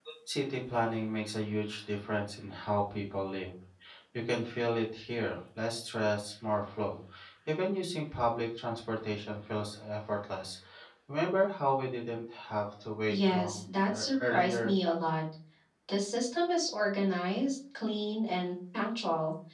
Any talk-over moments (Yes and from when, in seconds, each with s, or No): Yes, from 13.1 s